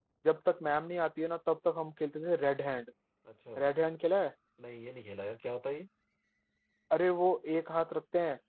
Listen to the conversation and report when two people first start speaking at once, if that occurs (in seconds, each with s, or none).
none